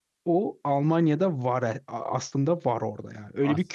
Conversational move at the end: taking over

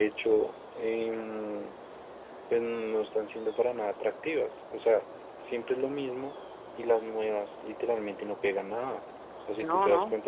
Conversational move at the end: listening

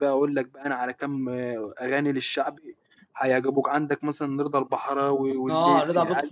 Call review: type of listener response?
taking over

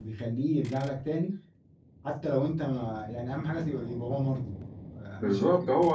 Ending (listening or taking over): taking over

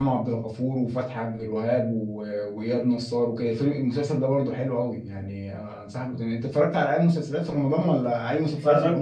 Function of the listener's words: taking over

